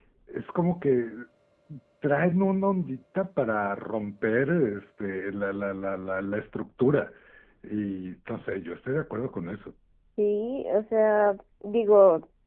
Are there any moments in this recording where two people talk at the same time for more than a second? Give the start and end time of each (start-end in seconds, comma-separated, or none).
none